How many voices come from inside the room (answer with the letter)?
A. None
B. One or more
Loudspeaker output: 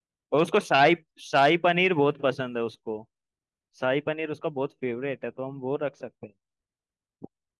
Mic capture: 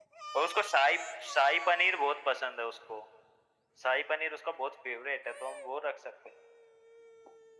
A